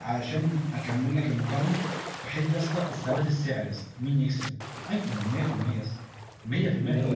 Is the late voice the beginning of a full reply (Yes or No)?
Yes